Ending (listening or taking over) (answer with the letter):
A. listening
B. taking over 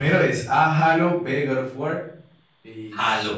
B